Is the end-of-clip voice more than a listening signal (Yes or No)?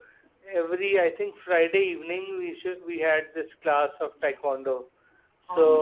No